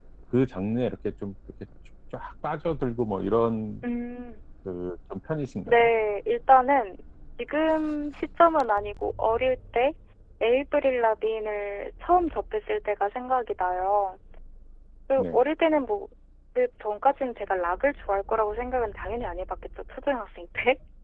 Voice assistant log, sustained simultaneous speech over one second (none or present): none